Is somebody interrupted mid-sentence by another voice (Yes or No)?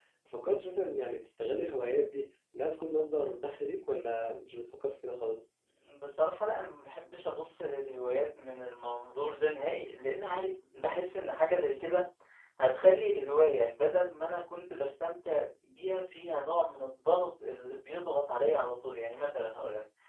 No